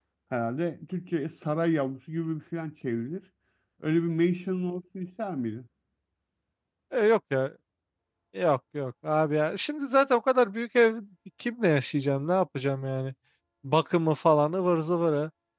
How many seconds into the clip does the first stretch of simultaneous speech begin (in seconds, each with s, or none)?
none